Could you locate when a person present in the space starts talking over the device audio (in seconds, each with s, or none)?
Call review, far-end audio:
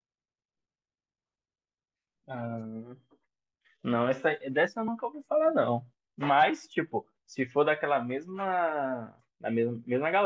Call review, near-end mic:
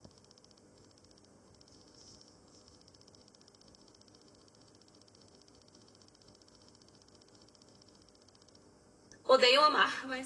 9.2 s